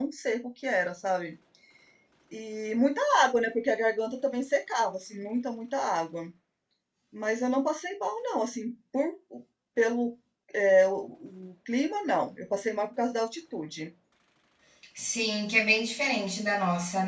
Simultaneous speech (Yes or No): No